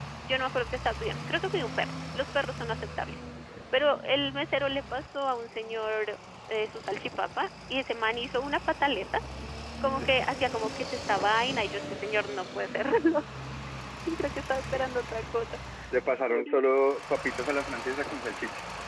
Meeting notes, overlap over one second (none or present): none